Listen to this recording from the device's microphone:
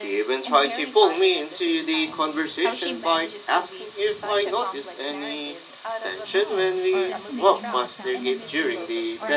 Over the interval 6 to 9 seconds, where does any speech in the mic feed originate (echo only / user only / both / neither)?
both